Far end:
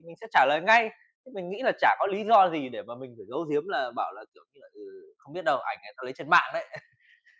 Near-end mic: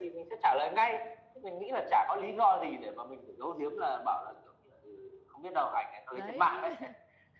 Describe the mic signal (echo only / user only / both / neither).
both